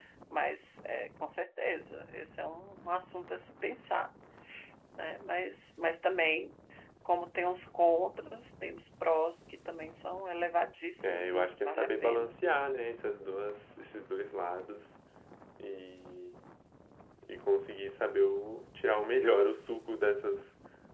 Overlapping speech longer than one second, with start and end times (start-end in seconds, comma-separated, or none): 11.0-12.4